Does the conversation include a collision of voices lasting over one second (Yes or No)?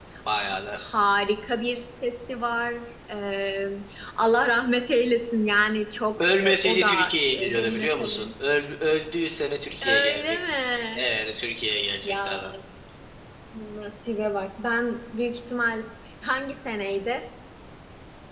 Yes